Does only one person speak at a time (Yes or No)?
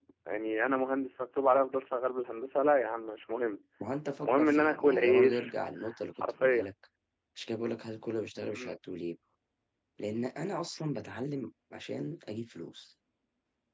No